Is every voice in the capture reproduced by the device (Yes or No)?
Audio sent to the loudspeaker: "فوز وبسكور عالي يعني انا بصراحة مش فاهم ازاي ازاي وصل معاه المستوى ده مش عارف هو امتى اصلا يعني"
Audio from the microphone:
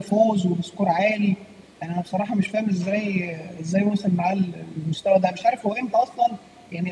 Yes